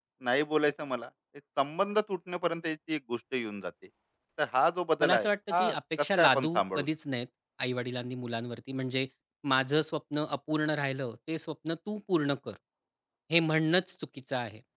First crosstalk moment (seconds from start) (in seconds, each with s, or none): 5.0 s